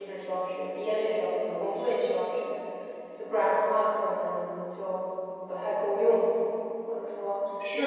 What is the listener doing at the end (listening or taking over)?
taking over